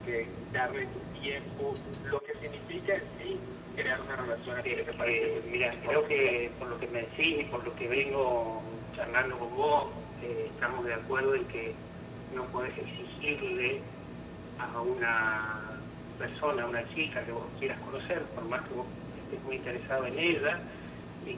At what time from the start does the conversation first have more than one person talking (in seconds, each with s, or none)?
4.6 s